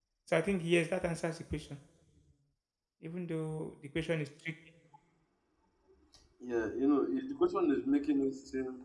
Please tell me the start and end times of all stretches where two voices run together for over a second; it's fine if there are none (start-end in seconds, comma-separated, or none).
none